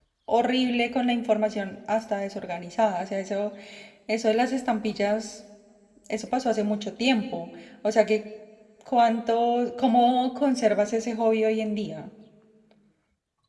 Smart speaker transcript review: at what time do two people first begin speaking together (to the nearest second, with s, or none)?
none